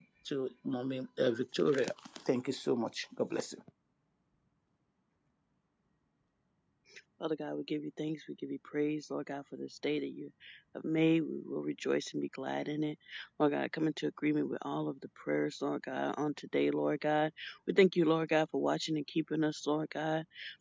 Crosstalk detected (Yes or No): No